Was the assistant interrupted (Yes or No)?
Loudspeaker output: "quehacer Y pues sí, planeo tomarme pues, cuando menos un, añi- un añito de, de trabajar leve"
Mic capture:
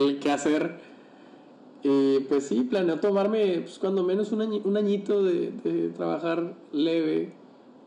No